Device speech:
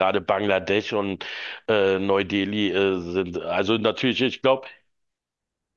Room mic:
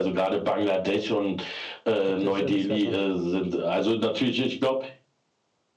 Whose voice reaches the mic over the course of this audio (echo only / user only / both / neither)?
both